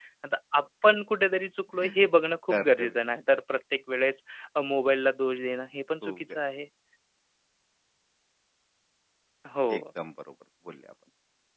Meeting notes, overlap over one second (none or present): none